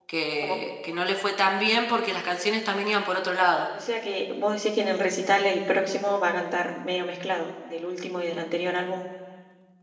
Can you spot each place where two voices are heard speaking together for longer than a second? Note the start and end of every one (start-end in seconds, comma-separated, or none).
none